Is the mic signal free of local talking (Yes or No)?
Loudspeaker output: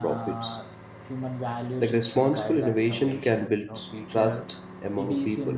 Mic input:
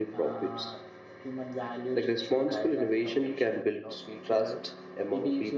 Yes